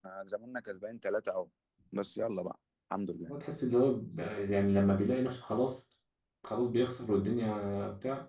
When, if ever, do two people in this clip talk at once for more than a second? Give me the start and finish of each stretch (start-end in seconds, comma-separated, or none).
none